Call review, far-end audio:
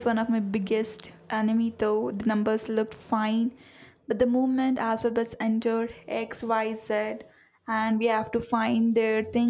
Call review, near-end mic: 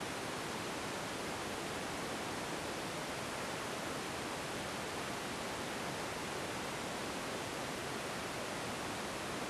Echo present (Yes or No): No